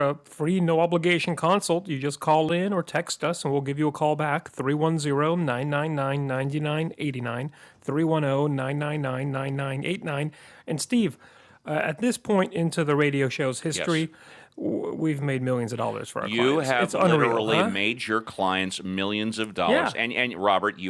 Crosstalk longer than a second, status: present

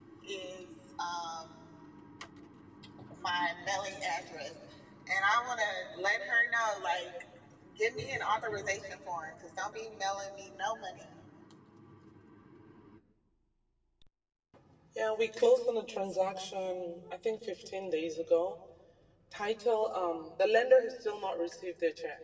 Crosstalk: none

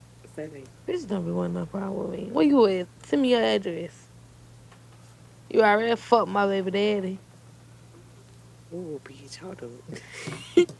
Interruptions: none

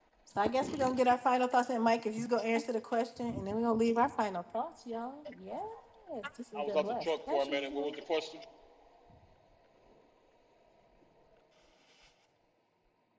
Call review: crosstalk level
present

